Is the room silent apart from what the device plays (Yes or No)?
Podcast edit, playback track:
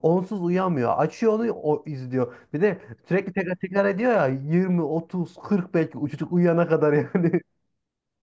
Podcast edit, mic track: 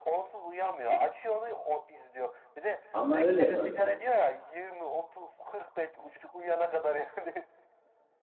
No